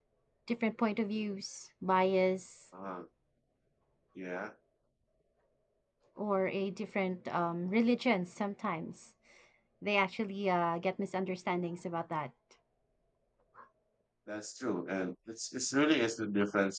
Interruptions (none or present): none